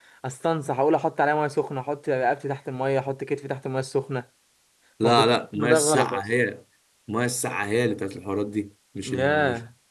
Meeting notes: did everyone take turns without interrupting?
No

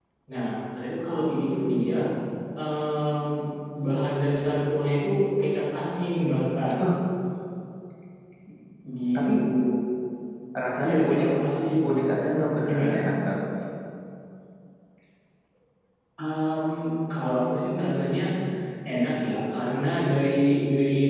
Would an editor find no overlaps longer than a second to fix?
Yes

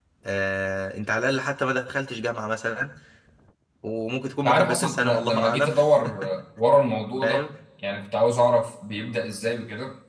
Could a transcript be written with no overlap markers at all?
No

